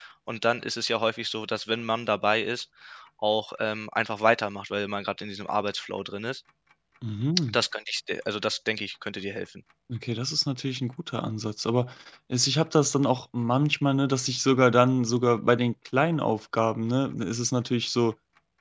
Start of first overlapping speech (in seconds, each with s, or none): none